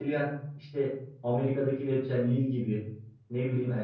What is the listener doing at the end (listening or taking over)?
listening